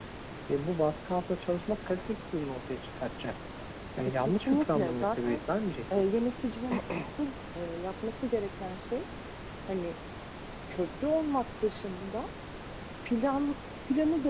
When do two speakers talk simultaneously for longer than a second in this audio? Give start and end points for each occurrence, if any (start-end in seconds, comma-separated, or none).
4.2-5.4